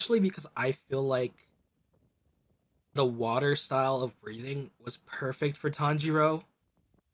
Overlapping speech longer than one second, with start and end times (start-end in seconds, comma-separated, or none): none